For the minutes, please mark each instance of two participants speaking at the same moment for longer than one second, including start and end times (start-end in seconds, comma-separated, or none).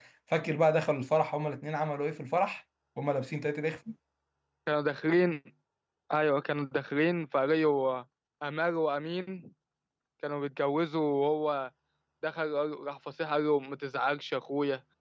none